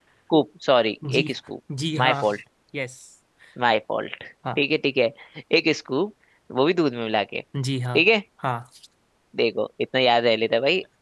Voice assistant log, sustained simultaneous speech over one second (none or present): none